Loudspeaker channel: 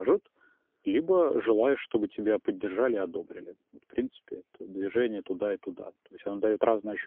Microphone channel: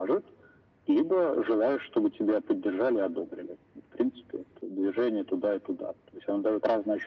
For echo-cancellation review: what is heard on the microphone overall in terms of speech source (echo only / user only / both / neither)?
echo only